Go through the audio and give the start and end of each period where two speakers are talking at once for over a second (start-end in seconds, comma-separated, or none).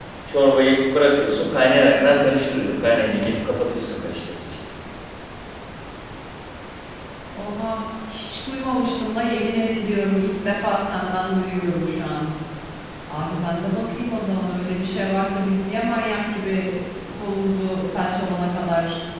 none